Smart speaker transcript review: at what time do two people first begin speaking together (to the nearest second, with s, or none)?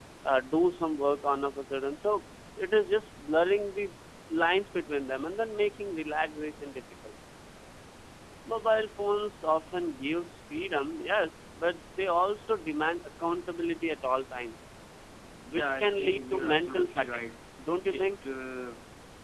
16 s